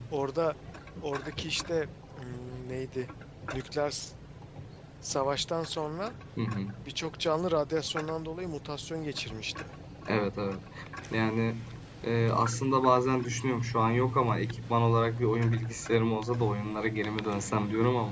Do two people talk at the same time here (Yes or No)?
No